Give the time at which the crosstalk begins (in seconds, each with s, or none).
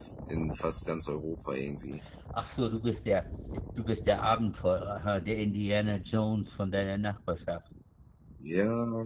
none